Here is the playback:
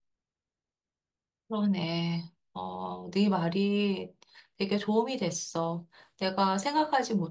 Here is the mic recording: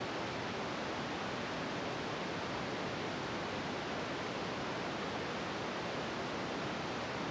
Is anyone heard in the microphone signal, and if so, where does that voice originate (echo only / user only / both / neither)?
neither